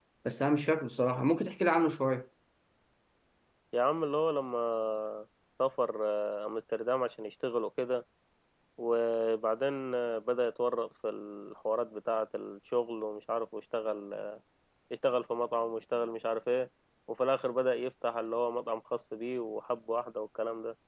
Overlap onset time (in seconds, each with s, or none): none